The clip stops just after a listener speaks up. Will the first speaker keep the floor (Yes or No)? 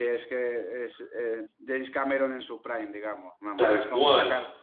Yes